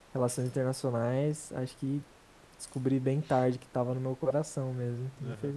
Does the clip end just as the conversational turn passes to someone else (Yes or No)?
Yes